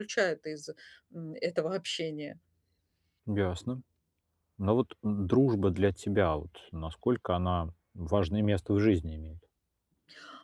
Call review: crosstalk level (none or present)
none